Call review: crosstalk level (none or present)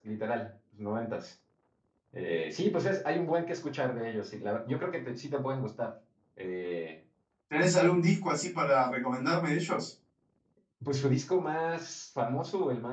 none